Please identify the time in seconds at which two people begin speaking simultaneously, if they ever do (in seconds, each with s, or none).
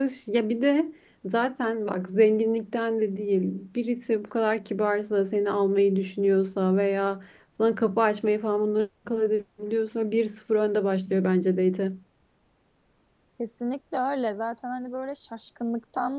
none